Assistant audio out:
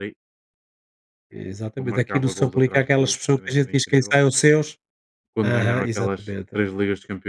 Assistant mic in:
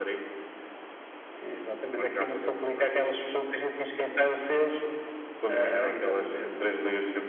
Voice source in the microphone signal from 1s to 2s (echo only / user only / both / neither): echo only